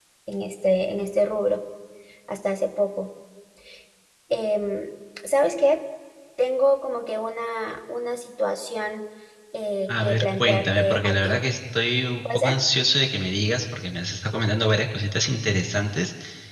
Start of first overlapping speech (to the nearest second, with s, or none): 10 s